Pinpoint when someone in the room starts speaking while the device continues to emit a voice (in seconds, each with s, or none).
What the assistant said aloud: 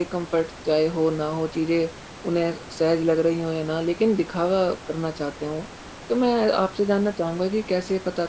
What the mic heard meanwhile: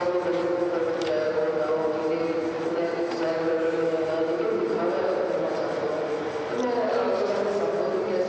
none